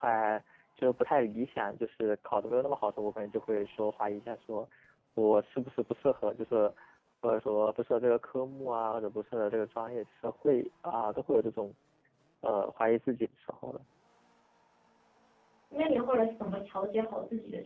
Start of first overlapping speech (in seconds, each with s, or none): none